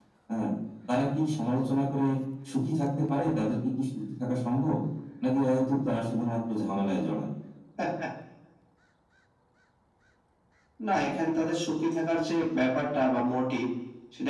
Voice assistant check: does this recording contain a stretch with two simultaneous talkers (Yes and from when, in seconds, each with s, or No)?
No